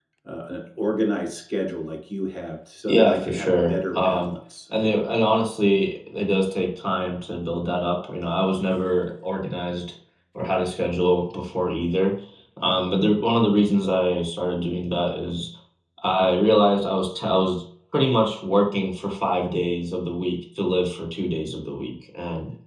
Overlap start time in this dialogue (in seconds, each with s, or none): 2.9 s